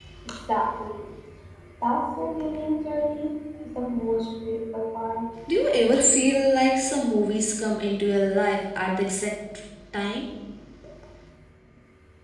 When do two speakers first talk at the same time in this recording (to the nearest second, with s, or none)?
none